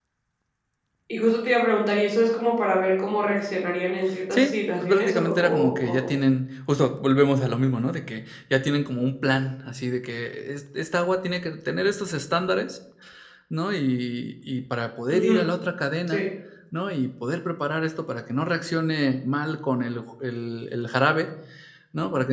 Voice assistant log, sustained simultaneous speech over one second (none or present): present